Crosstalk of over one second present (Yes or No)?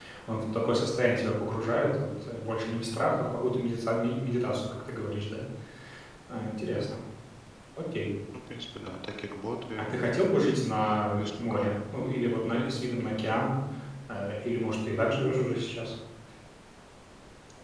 No